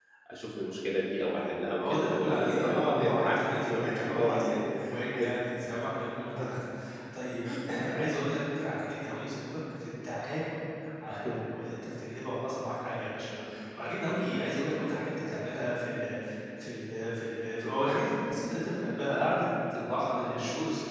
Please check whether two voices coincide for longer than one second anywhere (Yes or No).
Yes